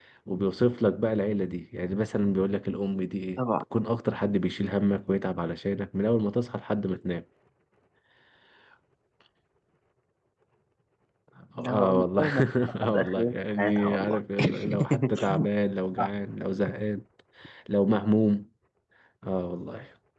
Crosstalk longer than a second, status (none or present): present